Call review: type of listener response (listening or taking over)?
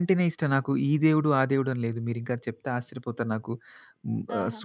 listening